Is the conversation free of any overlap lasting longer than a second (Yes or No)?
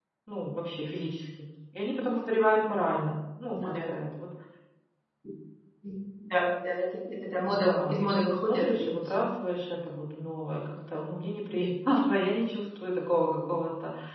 No